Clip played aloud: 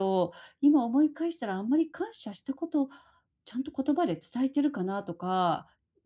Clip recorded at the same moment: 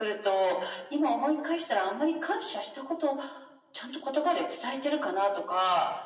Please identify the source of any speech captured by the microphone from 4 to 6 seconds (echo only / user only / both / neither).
echo only